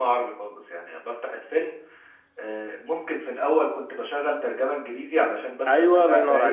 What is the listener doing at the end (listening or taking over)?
taking over